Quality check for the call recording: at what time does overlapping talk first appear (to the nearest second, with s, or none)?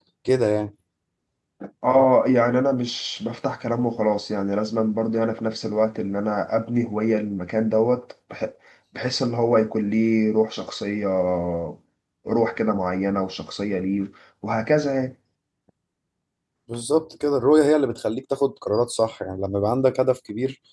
none